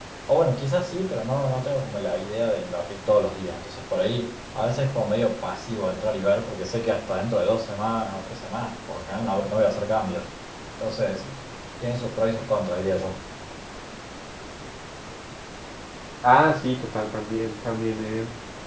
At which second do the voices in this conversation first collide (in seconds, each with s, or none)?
none